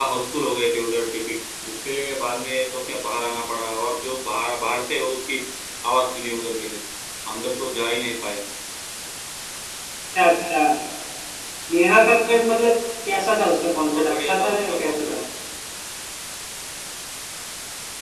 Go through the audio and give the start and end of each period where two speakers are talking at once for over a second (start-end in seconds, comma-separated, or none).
13.9-15.2